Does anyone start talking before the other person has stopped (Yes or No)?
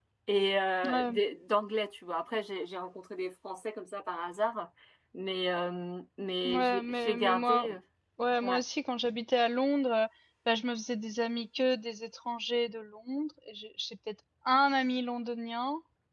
Yes